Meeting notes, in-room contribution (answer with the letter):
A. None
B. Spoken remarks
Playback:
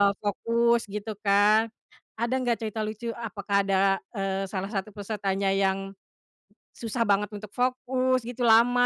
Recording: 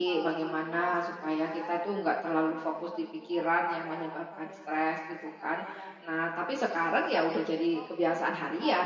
B